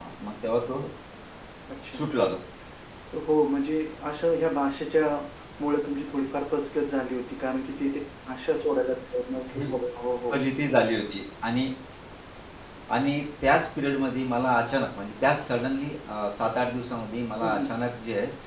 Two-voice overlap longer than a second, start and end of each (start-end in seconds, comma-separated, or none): none